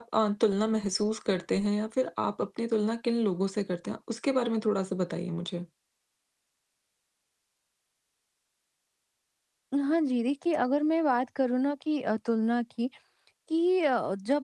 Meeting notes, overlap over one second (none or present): none